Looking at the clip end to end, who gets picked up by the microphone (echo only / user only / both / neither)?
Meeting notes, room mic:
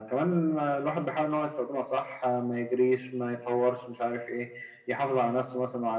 echo only